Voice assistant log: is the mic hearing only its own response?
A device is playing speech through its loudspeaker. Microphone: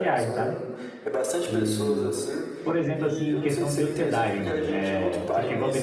No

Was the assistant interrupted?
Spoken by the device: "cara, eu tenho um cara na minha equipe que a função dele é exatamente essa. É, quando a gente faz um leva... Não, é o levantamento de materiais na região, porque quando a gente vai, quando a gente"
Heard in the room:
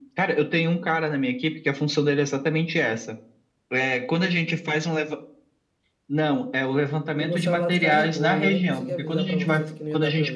Yes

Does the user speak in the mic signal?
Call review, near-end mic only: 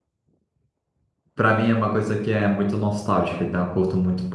Yes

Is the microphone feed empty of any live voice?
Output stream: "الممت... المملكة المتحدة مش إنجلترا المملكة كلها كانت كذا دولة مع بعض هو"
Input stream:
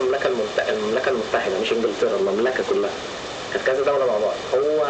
Yes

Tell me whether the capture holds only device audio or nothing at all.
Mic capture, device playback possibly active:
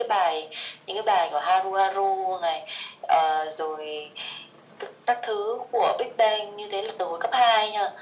Yes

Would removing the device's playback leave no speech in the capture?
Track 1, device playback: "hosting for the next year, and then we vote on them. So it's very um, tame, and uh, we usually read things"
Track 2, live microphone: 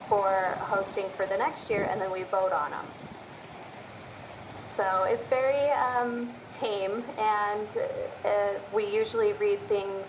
Yes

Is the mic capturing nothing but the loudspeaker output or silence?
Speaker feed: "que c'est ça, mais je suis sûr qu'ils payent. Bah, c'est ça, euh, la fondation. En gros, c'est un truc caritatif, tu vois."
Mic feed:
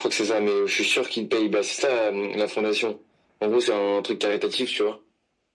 Yes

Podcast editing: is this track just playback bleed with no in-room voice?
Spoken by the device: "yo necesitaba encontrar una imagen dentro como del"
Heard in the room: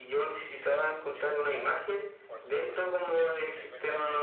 No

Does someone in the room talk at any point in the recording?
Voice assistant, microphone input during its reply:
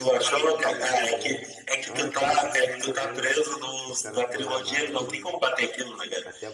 Yes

